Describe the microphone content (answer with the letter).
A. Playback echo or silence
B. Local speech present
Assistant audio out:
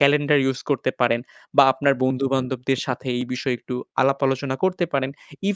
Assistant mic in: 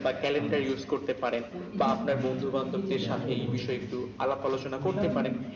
B